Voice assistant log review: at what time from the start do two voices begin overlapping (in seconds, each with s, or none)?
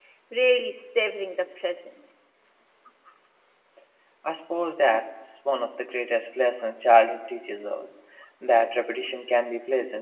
none